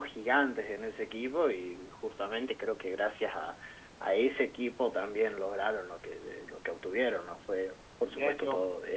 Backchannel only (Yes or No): No